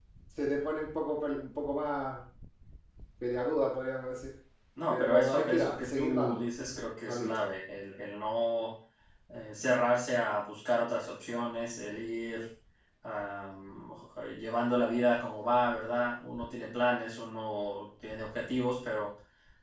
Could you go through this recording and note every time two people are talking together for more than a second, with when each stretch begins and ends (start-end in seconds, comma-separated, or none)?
4.9-6.4